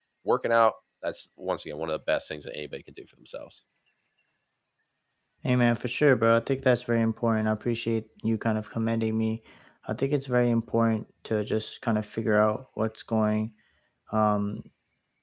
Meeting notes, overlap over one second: none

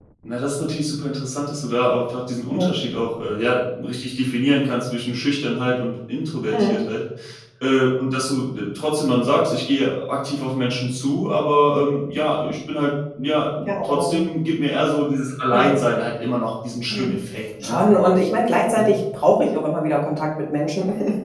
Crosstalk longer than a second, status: none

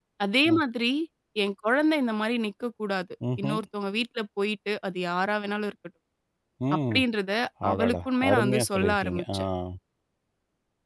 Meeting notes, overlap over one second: present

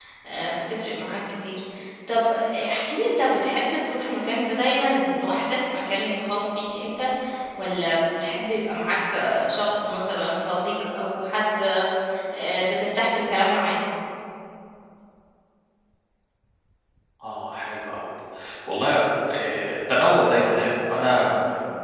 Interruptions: none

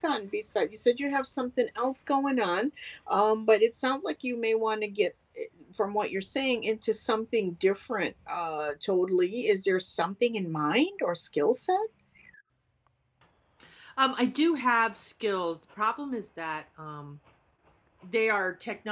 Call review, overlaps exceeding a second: none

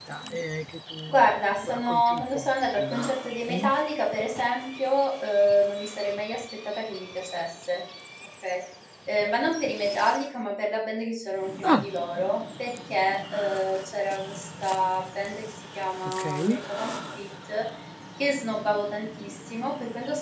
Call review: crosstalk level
present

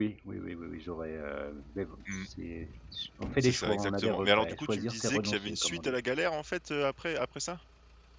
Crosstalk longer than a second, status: present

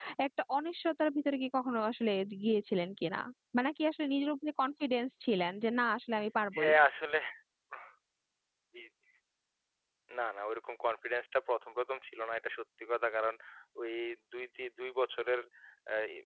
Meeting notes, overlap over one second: none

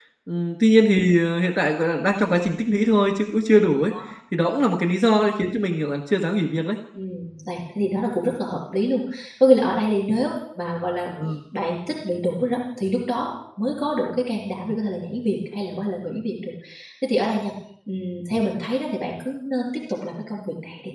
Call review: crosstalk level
none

